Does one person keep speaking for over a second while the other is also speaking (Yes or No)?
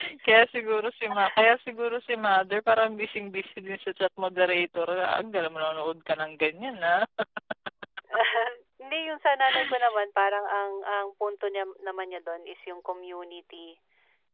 No